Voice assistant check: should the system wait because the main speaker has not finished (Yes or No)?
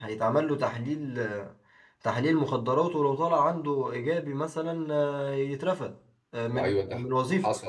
No